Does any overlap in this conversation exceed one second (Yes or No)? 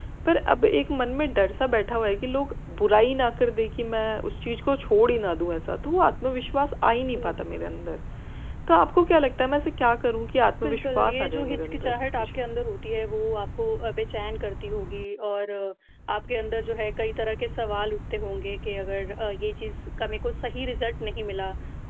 Yes